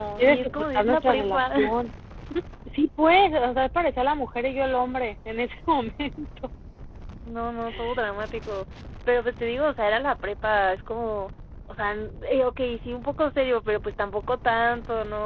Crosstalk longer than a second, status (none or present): present